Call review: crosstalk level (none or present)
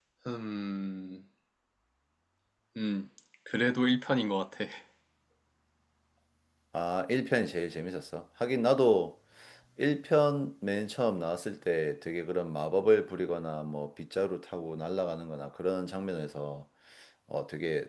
none